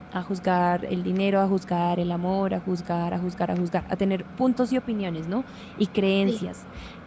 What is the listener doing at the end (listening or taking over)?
listening